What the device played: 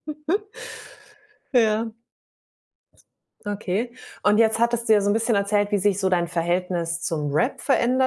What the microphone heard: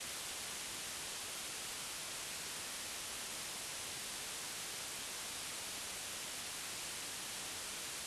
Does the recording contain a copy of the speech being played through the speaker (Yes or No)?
No